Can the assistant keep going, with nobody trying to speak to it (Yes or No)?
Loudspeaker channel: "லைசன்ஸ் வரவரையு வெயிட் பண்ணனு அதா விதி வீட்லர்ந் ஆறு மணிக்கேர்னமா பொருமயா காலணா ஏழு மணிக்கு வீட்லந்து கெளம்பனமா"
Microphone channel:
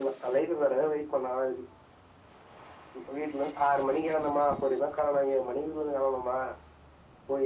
Yes